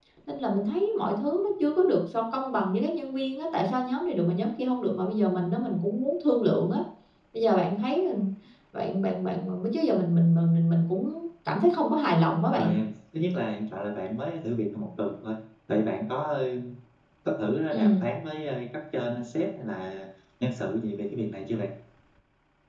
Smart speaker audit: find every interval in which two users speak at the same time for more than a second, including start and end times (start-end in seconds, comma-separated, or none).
none